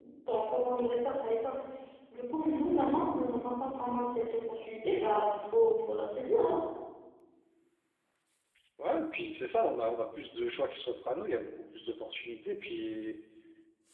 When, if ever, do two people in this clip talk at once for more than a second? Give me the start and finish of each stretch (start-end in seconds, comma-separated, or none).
none